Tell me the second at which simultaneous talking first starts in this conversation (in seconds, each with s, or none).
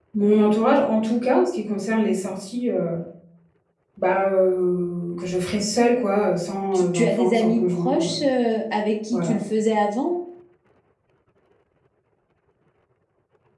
6.7 s